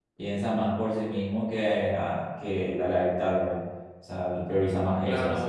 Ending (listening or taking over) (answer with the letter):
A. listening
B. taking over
B